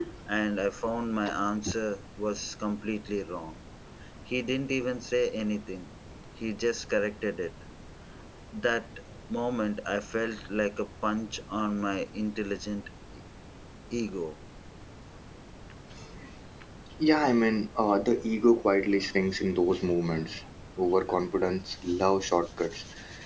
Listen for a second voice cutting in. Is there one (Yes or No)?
No